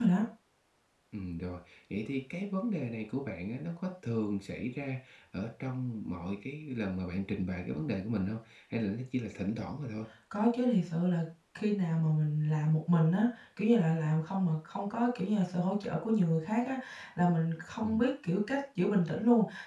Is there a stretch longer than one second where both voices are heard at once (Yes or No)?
No